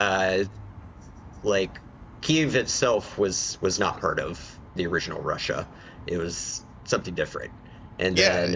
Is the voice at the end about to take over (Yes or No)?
Yes